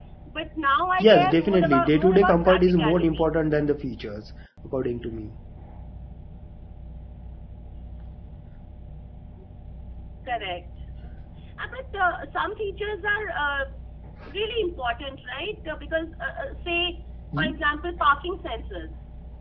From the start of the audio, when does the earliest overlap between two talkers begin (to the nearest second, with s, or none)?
1 s